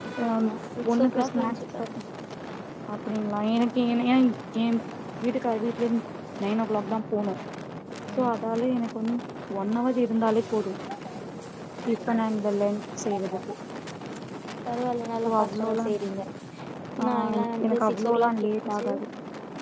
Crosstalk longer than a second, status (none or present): present